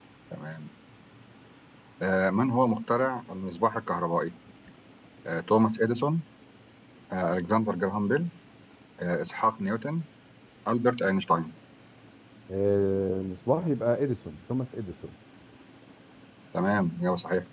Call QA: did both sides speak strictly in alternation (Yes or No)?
Yes